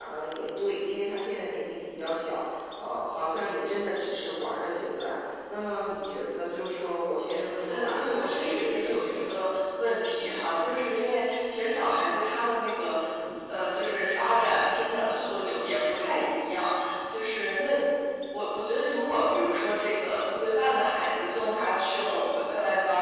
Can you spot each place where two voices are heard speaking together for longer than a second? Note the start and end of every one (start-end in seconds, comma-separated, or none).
7.7-9.4